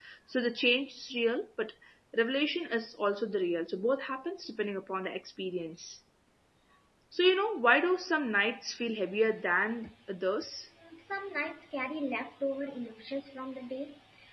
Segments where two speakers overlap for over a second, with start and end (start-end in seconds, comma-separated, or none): none